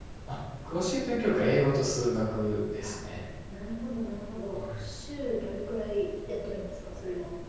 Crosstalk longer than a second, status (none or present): none